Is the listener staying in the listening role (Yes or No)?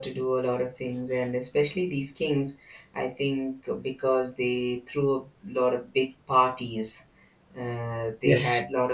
Yes